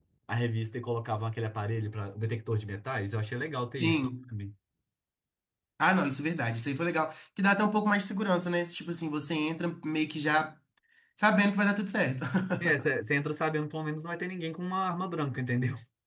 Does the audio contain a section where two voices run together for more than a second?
No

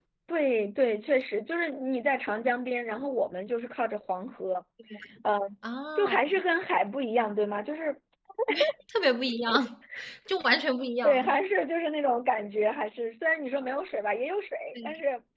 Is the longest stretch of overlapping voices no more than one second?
Yes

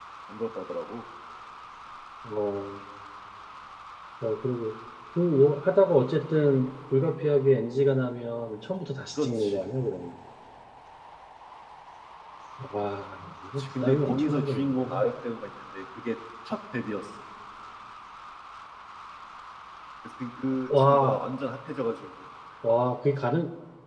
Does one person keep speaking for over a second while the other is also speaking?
Yes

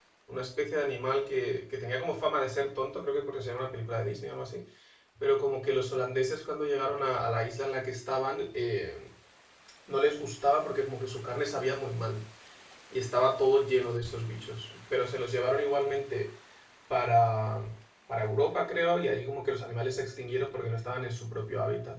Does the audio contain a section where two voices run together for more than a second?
No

